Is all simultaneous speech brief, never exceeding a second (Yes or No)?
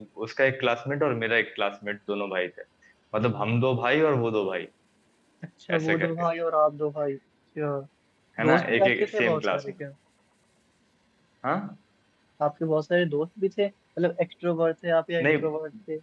No